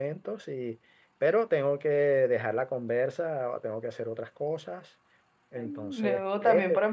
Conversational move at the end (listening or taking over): taking over